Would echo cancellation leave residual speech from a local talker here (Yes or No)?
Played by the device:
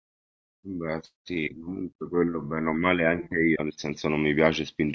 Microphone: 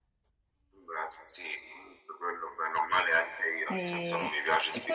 Yes